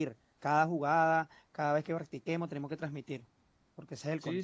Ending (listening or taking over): taking over